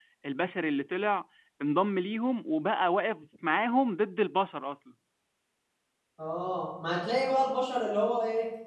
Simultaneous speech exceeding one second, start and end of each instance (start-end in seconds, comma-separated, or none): none